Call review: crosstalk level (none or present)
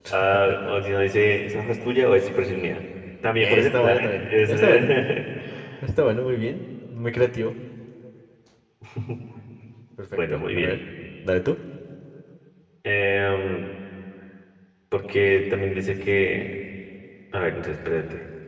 present